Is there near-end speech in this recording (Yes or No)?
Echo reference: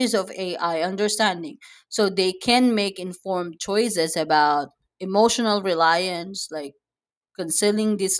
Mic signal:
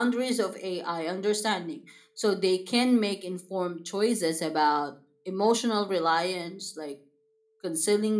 No